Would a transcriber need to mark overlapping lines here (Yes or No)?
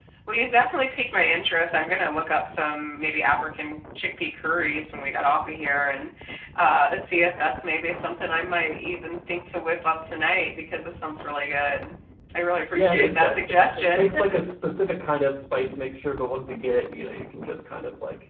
Yes